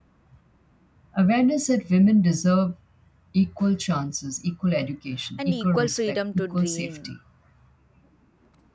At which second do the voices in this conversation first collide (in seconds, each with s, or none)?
5.4 s